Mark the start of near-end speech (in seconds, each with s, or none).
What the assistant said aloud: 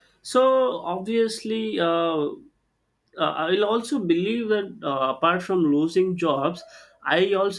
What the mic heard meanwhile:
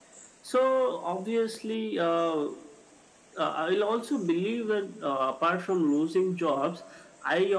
none